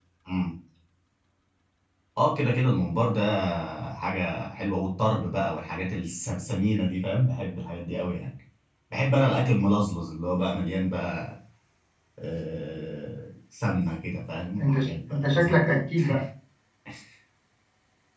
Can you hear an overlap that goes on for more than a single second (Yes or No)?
Yes